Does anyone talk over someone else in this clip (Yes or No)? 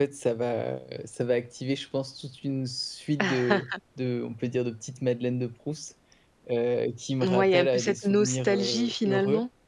Yes